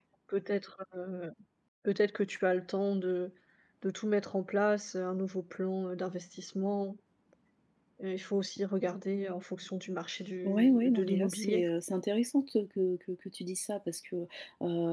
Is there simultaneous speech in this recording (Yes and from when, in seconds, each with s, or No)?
Yes, from 10.4 s